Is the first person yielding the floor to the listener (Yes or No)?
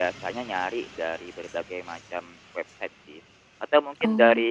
No